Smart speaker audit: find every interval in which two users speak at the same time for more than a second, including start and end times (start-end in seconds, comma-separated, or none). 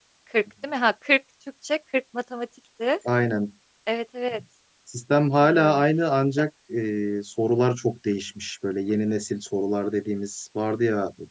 none